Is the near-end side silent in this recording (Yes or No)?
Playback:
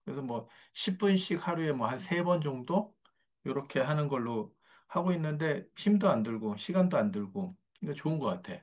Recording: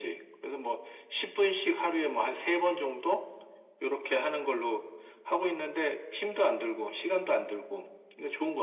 Yes